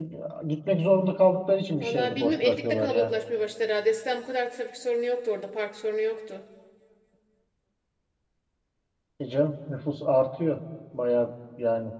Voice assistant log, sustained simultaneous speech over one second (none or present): present